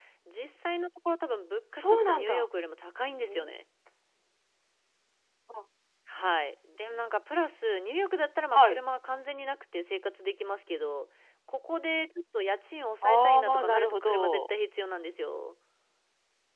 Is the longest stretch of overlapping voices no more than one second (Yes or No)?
No